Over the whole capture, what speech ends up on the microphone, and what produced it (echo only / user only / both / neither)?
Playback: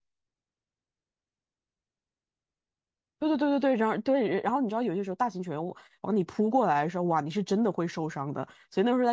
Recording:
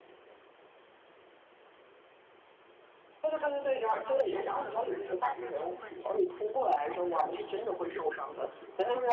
both